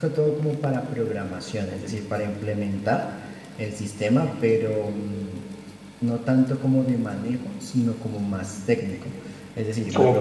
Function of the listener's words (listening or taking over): taking over